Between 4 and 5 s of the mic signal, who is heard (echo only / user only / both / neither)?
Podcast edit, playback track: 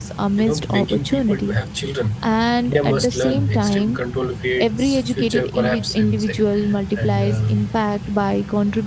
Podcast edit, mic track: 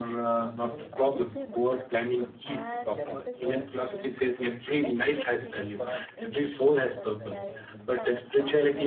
both